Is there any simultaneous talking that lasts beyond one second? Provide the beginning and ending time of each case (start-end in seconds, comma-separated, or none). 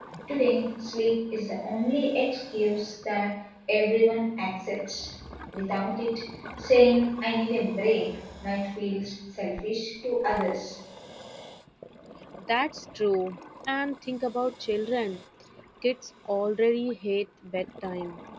none